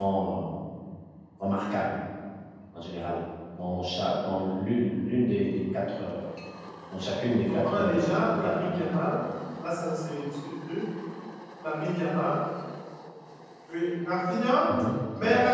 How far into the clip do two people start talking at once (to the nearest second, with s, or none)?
8 s